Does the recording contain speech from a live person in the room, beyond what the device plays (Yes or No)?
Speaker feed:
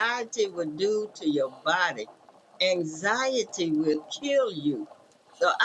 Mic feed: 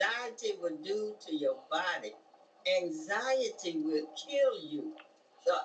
No